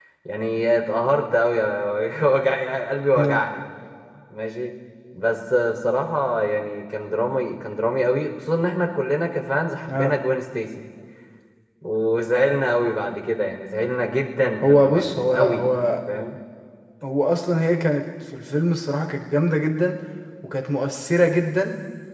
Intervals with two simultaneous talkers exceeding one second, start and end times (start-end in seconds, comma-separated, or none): 14.6-16.0